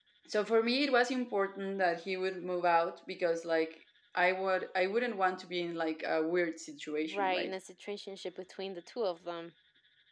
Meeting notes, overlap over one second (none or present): none